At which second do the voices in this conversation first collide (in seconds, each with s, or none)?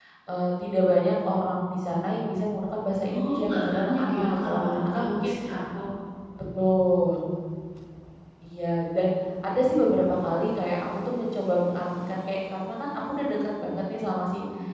3.1 s